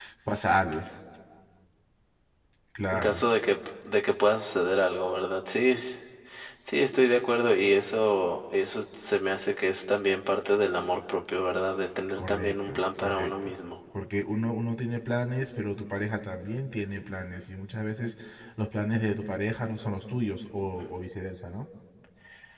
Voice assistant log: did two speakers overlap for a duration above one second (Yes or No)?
Yes